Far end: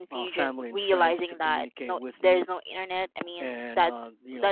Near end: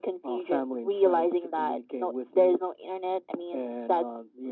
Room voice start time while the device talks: none

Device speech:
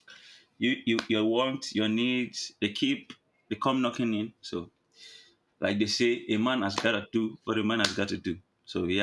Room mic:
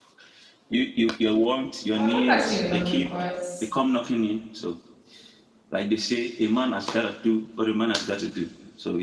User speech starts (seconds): 1.9 s

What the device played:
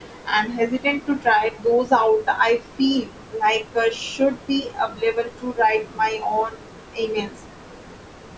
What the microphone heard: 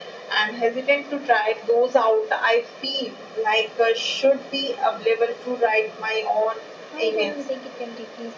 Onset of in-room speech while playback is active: 6.9 s

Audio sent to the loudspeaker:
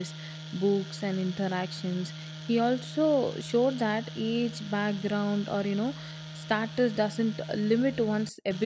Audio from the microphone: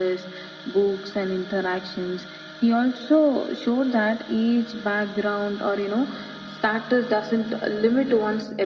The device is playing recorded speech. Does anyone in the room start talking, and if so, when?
none

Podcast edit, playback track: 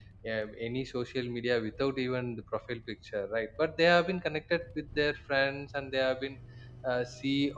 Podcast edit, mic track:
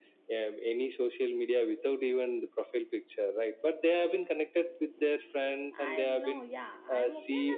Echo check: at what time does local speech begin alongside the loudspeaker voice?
5.7 s

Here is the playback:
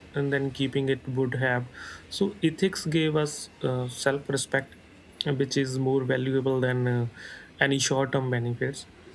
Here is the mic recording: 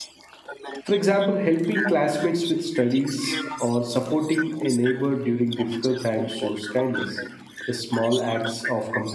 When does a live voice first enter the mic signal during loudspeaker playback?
0.8 s

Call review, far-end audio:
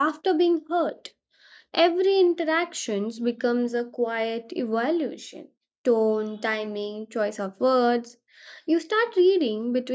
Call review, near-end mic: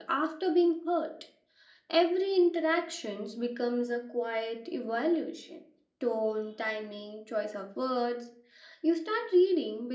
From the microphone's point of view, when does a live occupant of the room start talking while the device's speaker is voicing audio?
none

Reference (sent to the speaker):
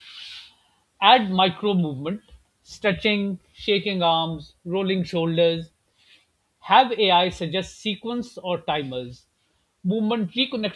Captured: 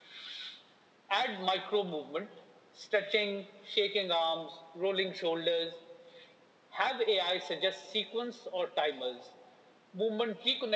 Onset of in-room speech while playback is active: none

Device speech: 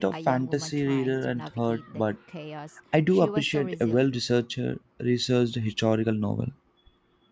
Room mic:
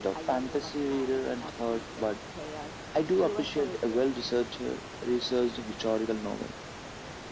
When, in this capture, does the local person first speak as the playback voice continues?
none

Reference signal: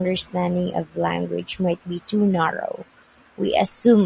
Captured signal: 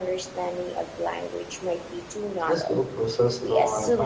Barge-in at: 2.5 s

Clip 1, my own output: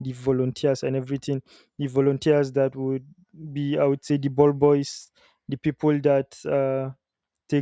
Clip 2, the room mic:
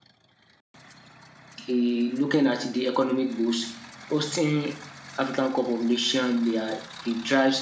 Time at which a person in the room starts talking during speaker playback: 1.7 s

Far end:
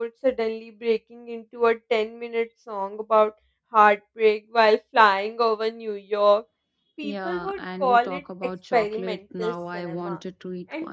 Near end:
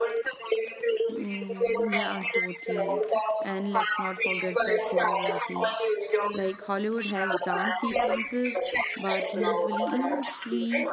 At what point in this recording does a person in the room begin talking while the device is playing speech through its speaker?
1.1 s

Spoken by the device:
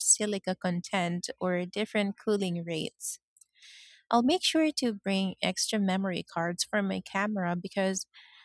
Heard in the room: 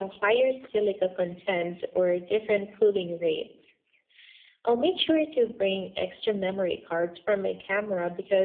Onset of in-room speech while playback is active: none

